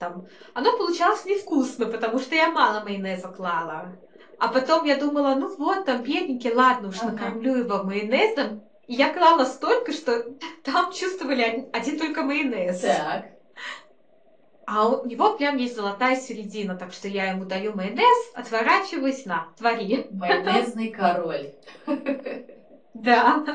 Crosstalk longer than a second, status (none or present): none